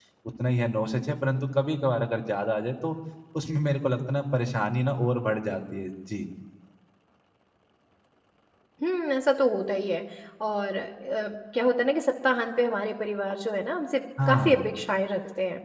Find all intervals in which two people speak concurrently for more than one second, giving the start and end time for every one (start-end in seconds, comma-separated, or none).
none